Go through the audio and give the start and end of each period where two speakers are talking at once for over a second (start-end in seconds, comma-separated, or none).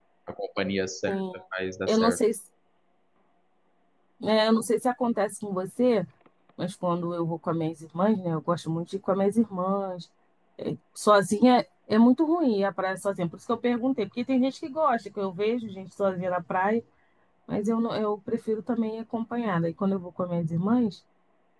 none